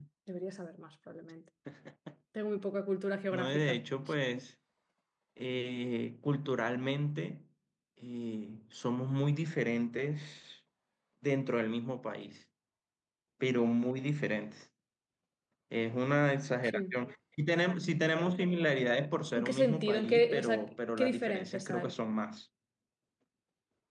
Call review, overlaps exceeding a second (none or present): present